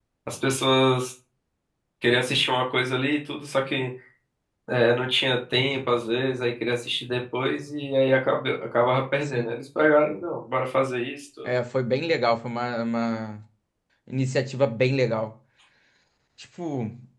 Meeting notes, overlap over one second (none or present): none